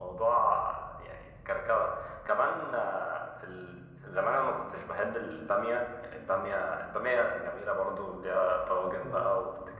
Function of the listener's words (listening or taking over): listening